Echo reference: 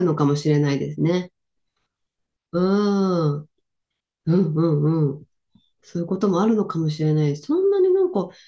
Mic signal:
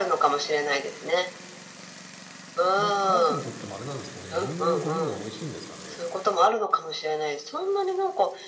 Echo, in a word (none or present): present